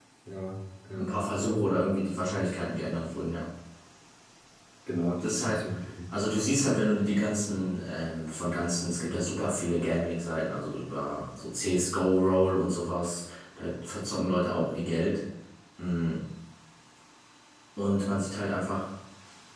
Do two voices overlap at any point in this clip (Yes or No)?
Yes